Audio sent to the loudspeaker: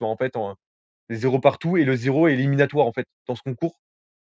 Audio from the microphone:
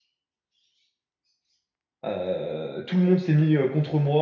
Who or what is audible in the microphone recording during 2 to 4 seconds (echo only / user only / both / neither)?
user only